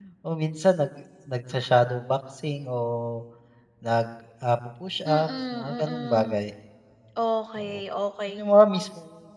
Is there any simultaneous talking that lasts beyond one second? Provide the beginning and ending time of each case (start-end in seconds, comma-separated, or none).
5.1-6.3